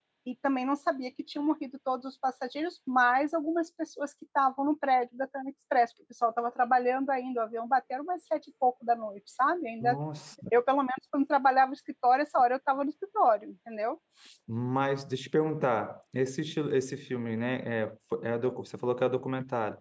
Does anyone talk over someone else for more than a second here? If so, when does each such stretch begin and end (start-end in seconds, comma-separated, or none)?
none